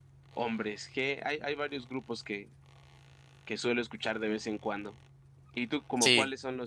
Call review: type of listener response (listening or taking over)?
listening